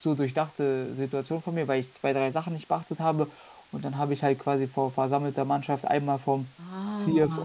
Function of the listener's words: listening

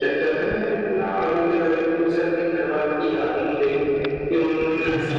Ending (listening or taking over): listening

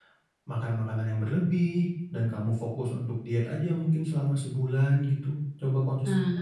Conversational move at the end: listening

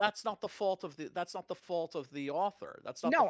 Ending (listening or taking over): taking over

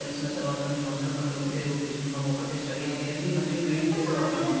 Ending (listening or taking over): taking over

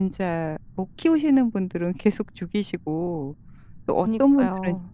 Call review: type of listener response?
listening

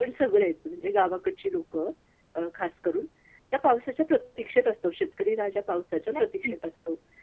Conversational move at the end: listening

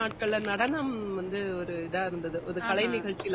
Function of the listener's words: listening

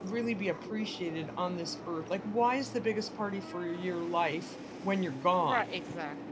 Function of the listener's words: taking over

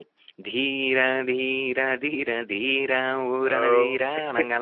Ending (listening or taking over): listening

